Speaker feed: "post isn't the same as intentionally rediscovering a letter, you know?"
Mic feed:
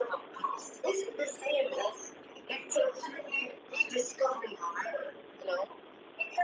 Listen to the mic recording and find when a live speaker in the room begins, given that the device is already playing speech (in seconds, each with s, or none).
none